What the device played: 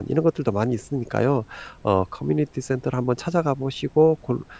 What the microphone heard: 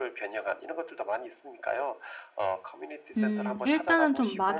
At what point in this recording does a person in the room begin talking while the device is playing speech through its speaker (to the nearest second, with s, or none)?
3 s